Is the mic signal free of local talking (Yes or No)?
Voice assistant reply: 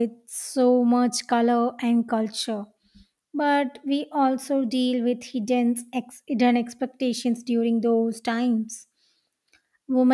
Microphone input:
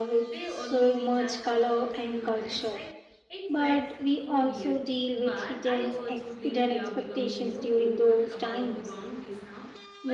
No